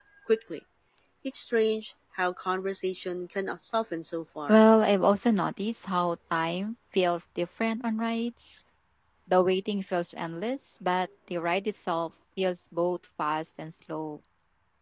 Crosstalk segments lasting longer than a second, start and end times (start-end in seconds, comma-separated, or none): none